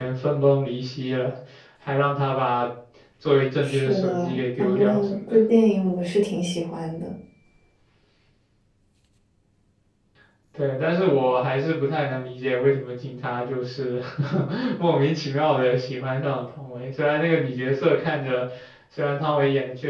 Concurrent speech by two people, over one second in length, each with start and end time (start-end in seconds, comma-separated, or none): 3.6-5.4